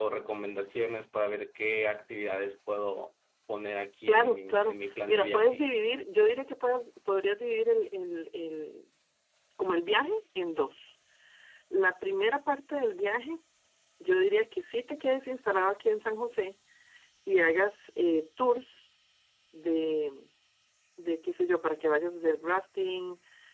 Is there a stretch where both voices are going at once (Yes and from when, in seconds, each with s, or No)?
Yes, from 4.1 s